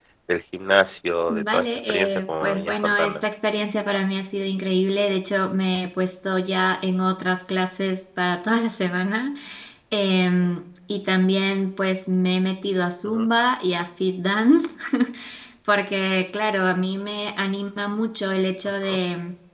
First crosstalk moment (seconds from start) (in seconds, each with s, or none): 1.3 s